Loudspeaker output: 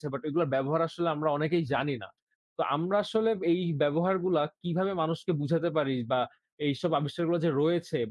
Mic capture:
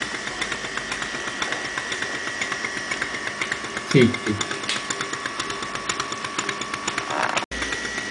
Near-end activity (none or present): present